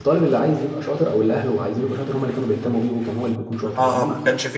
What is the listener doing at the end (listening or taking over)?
taking over